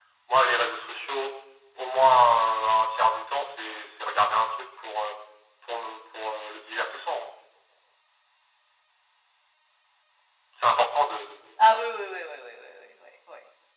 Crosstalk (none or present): none